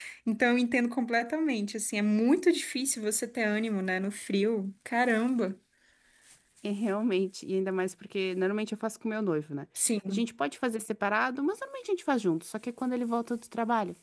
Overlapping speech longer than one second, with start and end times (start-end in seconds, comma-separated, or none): none